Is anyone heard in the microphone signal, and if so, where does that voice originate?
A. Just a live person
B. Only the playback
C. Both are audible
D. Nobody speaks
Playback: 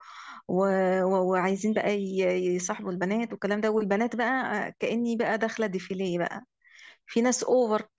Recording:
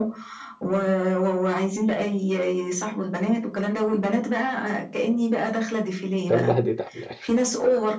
C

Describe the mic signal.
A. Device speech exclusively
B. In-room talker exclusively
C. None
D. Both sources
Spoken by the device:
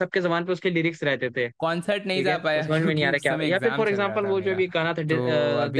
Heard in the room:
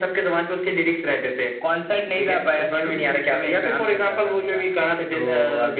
A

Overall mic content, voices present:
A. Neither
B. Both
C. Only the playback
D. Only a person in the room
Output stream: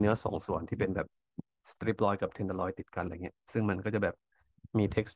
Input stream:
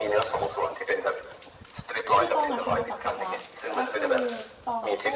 B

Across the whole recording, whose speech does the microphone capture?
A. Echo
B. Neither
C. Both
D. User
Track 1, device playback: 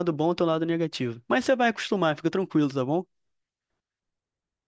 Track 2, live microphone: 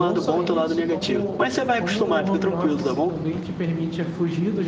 C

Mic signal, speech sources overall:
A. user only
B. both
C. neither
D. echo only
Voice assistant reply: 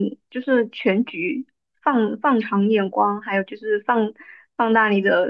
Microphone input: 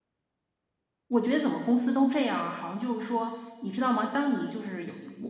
A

